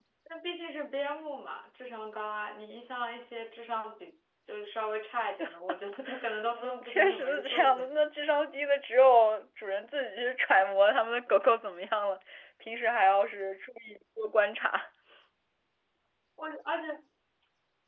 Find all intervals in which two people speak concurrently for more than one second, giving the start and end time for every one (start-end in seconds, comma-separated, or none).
6.5-7.9